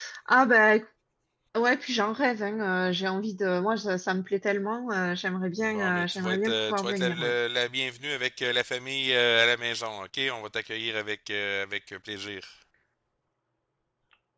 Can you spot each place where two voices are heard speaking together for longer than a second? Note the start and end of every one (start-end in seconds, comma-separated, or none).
5.6-7.3